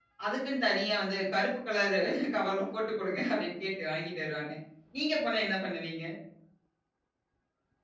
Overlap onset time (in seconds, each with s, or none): none